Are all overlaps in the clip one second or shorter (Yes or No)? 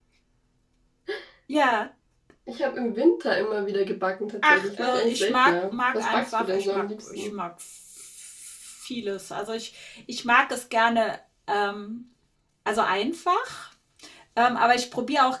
No